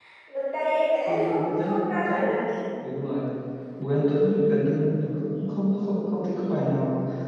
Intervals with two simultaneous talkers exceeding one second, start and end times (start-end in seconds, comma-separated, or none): 1.1-2.3